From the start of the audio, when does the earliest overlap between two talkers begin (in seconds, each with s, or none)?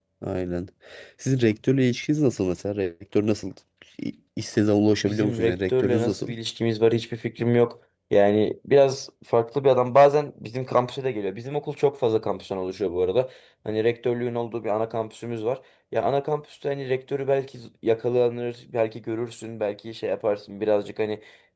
5.0 s